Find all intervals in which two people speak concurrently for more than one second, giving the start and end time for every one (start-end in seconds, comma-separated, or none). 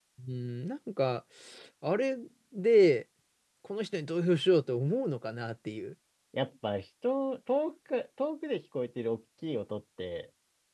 none